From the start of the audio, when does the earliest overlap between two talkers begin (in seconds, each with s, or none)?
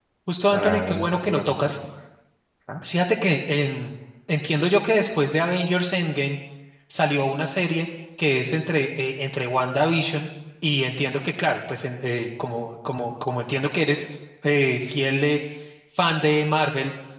0.5 s